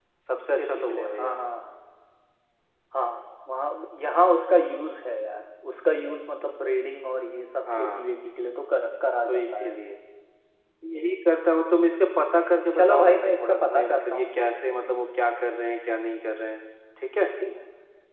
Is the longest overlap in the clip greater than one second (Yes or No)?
Yes